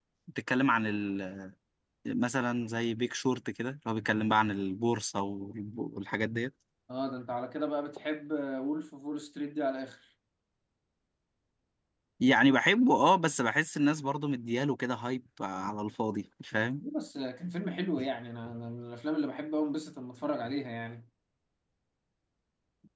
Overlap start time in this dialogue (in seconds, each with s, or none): none